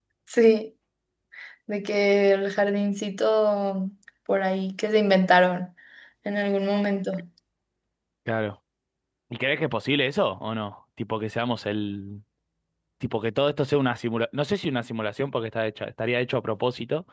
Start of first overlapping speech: none

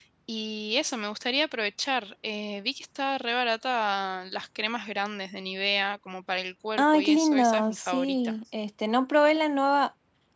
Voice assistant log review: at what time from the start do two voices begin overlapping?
6.8 s

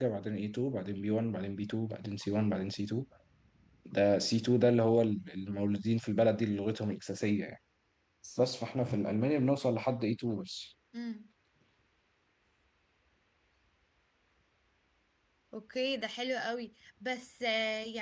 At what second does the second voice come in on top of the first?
none

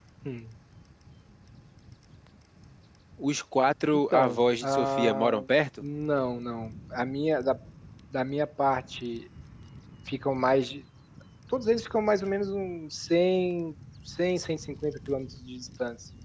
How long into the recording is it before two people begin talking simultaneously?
4.1 s

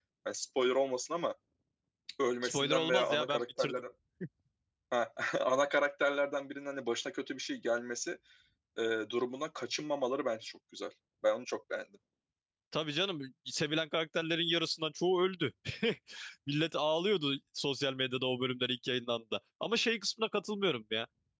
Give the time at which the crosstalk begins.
2.4 s

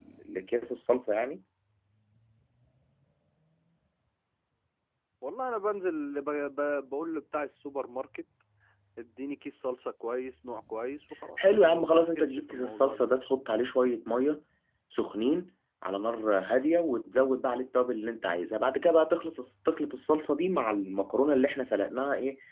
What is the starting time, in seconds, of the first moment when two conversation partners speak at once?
11.4 s

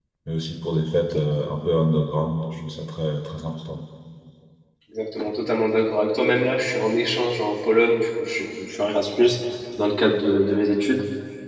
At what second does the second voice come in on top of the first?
none

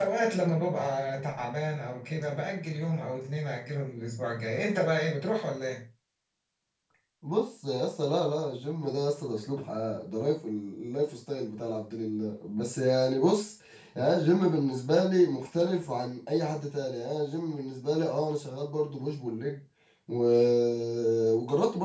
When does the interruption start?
none

